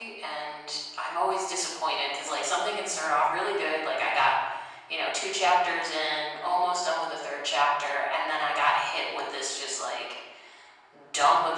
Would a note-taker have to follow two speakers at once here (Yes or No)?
No